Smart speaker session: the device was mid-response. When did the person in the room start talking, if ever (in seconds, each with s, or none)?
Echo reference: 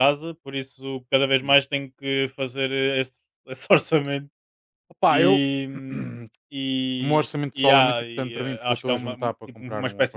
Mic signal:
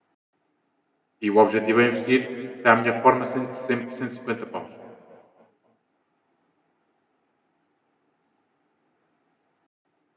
1.2 s